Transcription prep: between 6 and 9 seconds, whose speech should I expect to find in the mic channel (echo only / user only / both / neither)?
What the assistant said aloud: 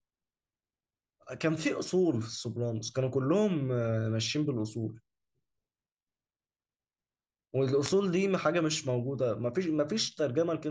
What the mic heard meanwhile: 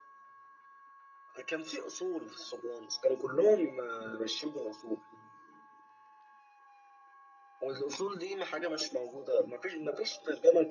echo only